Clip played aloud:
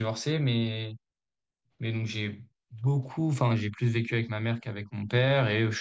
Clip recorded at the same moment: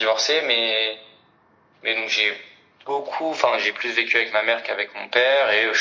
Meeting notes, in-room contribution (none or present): none